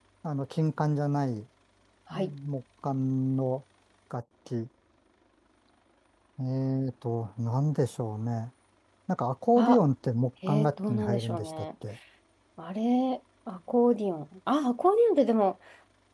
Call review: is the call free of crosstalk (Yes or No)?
No